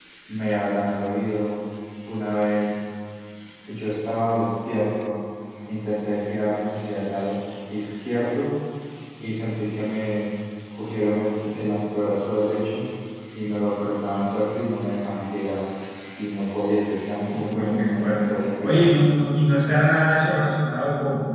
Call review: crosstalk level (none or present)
present